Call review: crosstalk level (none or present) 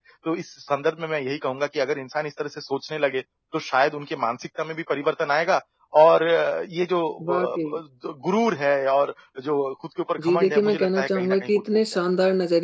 present